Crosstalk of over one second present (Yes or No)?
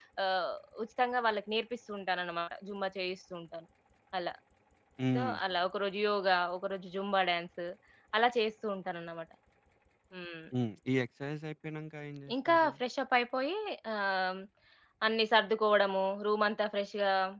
No